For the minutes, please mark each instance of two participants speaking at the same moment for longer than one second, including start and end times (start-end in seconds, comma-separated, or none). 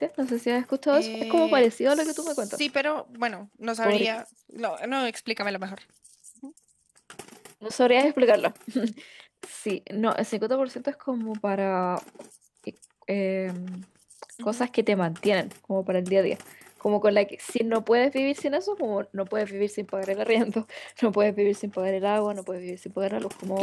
0.9-2.6